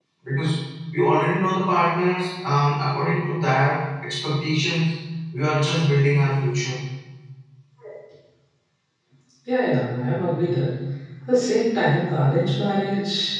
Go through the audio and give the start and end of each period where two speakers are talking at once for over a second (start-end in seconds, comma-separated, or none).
none